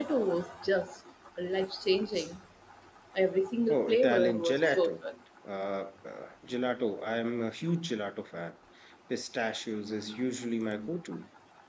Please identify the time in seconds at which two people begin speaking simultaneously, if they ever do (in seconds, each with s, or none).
3.7 s